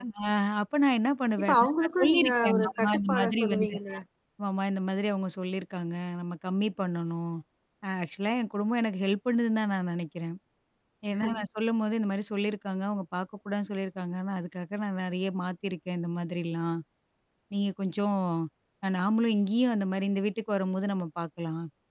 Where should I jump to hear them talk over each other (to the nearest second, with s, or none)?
1 s